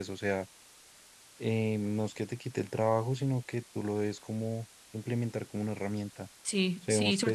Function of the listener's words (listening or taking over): taking over